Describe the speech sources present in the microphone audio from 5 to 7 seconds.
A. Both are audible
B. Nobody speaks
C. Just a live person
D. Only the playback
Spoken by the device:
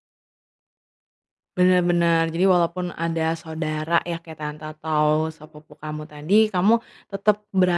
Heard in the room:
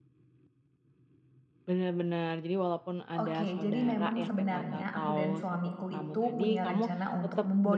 A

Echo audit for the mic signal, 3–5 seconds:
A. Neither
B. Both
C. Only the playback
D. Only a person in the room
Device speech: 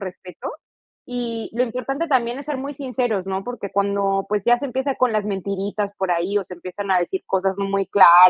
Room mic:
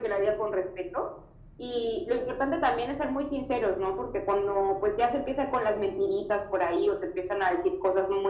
C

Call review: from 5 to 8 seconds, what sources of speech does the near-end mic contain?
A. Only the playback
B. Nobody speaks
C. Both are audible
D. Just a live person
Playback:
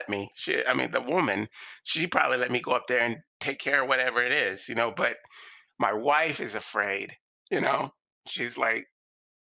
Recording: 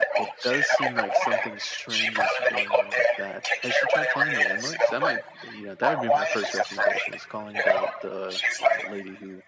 C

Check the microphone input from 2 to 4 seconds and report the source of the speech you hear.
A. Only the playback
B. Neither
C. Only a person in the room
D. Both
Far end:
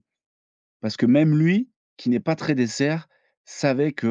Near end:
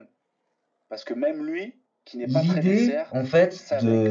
D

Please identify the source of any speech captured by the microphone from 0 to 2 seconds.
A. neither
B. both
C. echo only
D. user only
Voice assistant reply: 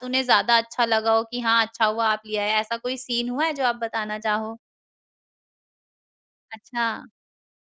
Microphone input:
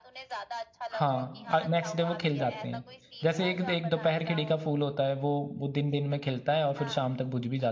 B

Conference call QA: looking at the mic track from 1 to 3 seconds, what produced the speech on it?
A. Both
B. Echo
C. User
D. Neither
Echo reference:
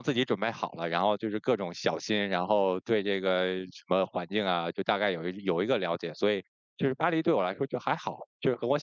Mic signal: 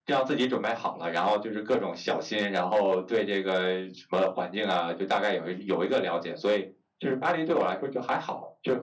B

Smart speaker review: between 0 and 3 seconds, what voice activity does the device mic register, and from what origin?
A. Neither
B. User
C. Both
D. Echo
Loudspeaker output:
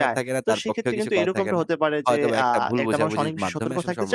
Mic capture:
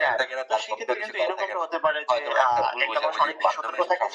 D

